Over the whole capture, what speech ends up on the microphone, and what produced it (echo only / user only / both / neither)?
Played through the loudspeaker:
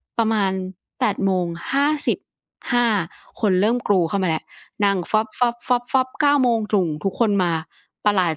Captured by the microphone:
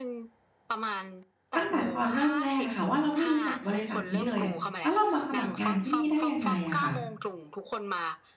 both